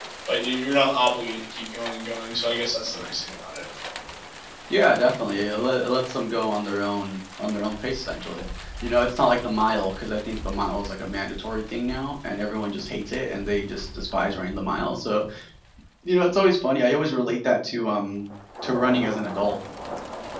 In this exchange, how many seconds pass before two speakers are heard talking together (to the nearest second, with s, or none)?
none